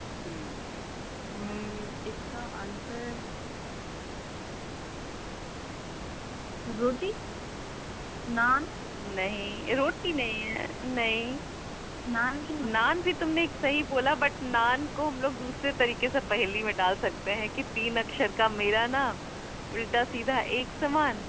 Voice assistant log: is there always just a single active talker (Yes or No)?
Yes